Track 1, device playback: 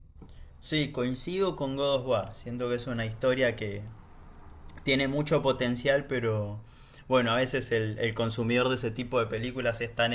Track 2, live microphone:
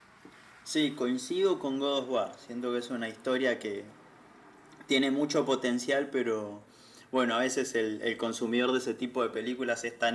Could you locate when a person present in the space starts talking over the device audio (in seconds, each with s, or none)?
none